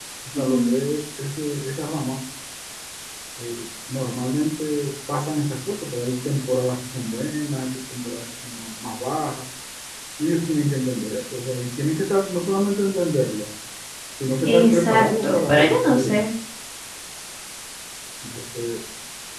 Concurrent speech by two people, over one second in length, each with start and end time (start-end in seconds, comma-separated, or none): 14.7-16.2